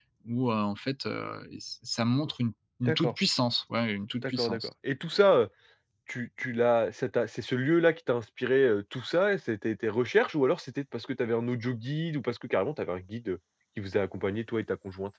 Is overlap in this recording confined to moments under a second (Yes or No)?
Yes